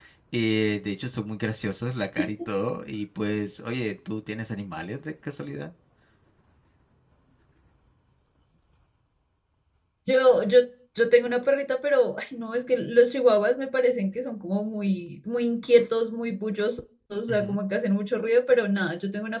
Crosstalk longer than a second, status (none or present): none